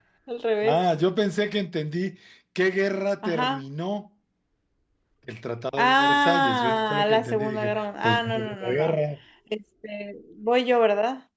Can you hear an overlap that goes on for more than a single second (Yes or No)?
Yes